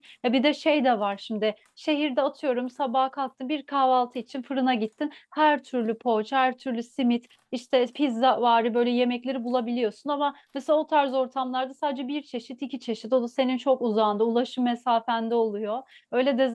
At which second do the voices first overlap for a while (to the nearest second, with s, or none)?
none